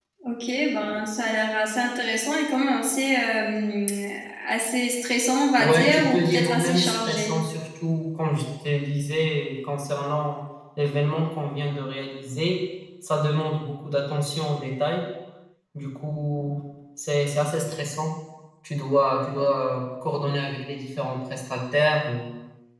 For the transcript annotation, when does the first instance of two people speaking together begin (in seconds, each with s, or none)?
5.6 s